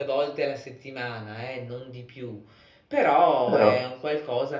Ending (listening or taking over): listening